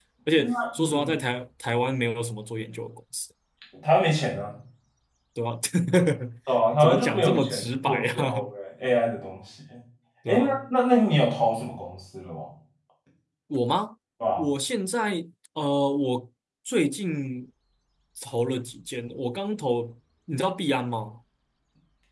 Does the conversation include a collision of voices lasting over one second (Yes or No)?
Yes